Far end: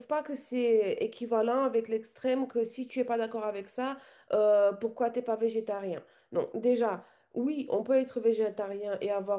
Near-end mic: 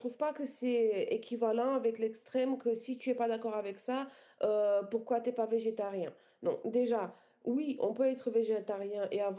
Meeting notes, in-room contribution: none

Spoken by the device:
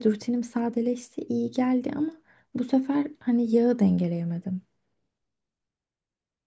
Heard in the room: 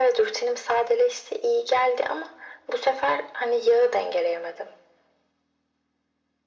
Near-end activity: none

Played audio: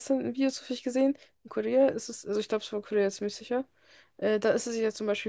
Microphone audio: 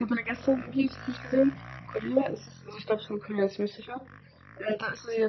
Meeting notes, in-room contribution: none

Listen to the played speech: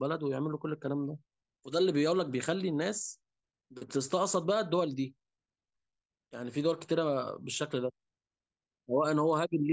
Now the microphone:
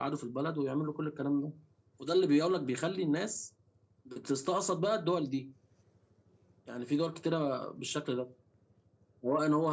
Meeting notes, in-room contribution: none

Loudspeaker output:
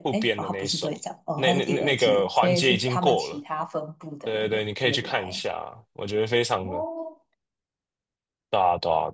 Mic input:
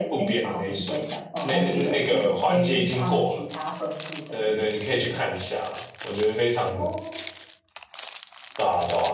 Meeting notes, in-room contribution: none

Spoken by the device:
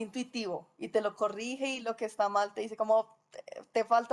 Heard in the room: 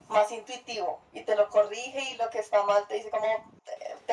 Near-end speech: none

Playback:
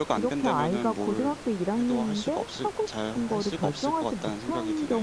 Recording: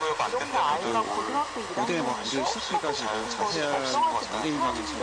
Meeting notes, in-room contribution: present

